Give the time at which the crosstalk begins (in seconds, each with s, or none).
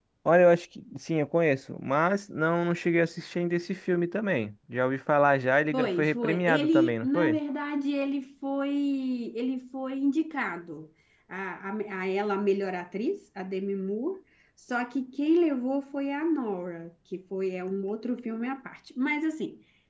5.7 s